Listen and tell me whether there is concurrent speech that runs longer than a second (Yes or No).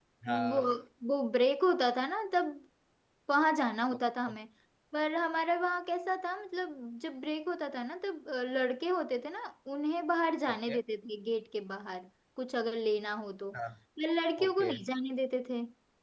No